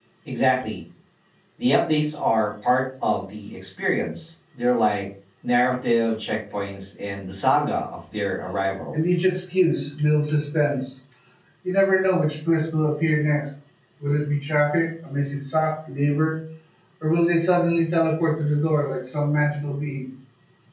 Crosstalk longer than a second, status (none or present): none